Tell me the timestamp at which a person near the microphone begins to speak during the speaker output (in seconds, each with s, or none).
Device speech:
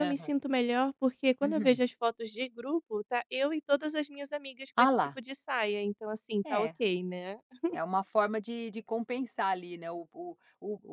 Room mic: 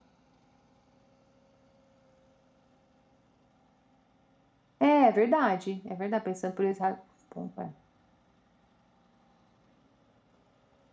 4.8 s